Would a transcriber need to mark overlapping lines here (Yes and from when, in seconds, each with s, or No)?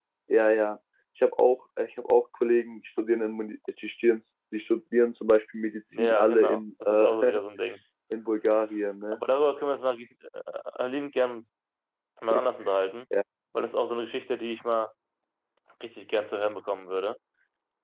Yes, from 5.9 s